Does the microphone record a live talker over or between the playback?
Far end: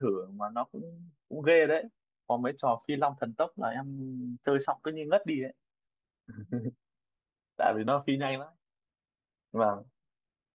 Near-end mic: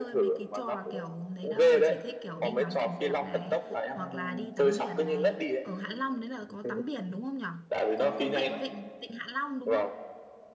Yes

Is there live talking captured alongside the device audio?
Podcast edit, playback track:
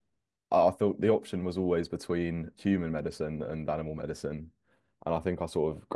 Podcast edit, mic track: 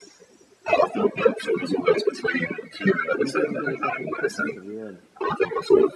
Yes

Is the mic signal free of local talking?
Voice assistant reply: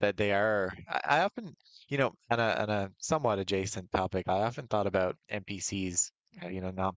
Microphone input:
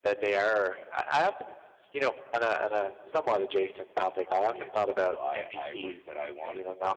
No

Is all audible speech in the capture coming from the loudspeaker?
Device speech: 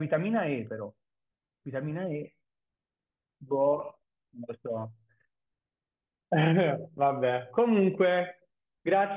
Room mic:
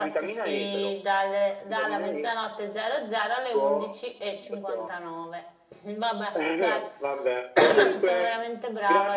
No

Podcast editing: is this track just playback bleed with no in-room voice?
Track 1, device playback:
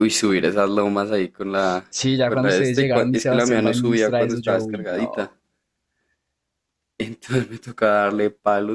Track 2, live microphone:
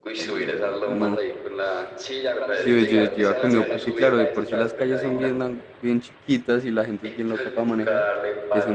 No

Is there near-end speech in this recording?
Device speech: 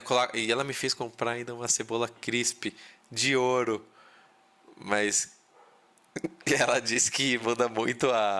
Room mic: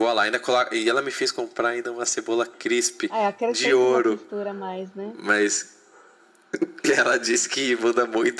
Yes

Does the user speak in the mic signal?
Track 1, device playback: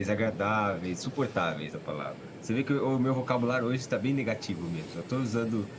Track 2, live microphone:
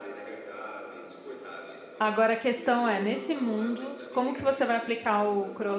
Yes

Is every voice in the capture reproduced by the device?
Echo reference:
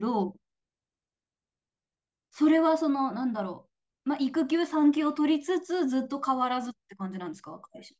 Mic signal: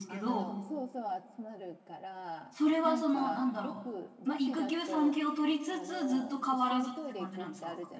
No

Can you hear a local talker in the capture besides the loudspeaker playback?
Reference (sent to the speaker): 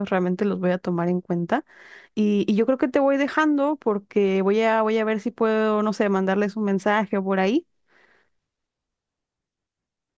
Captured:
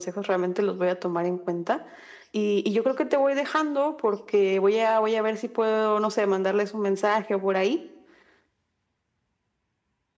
No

